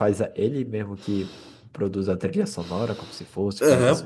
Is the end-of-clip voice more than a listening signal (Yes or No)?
Yes